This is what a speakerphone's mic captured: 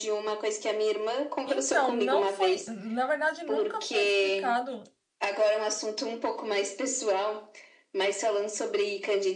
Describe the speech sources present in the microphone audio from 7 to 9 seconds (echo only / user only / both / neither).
echo only